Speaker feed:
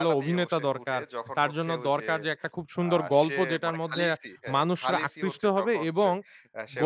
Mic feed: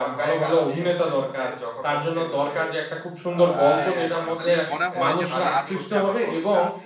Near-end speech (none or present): present